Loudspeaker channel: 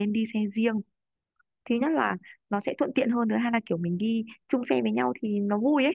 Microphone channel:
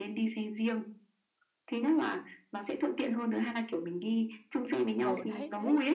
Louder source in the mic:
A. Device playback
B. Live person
A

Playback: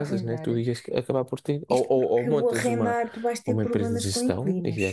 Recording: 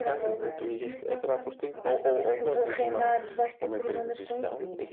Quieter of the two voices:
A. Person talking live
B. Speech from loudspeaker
A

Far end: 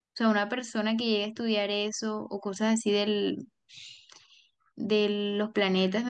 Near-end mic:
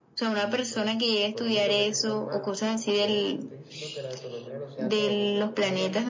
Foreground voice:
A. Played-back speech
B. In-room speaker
A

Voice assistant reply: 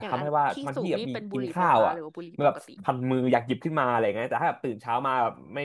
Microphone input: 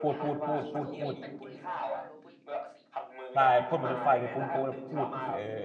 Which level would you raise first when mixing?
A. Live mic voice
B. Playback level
B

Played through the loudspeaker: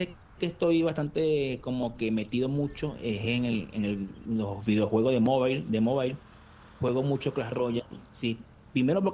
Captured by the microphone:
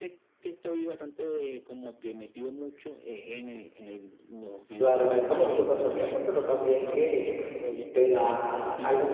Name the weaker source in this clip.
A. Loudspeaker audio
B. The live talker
A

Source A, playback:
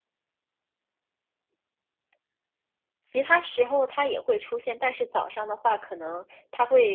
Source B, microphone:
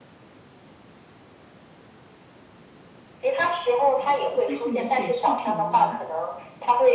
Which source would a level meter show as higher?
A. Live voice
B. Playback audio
B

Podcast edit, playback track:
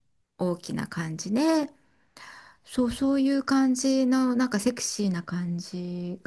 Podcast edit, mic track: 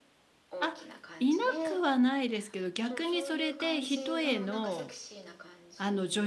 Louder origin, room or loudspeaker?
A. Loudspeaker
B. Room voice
B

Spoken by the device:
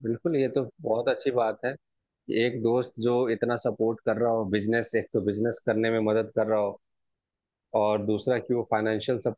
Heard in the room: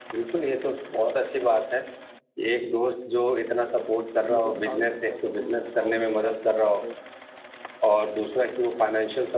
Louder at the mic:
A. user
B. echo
B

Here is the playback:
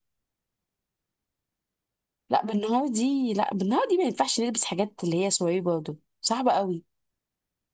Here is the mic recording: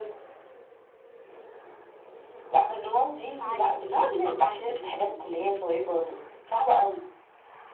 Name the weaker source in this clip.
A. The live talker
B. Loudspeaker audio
A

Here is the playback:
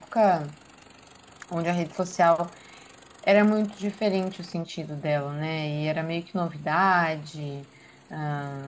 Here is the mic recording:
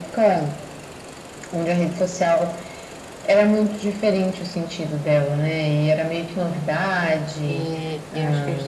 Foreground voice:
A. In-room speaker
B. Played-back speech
B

